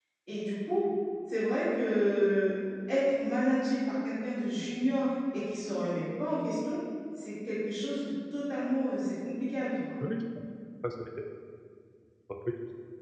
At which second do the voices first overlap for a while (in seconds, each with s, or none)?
none